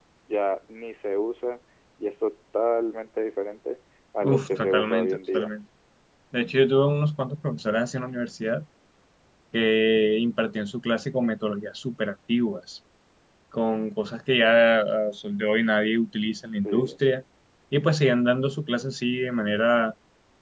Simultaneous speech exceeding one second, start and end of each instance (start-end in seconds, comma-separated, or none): 4.2-5.5